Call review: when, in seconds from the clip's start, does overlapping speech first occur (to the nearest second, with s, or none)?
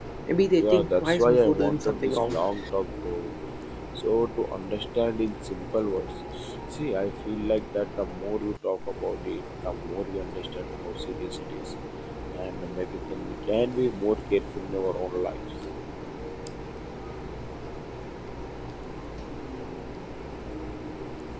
1 s